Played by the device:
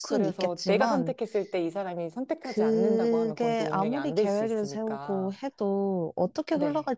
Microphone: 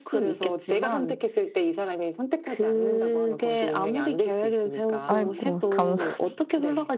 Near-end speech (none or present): present